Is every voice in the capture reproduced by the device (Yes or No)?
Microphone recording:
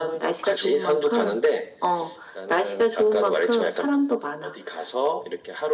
Yes